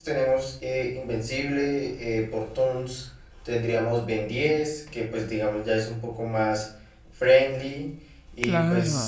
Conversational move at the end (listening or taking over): listening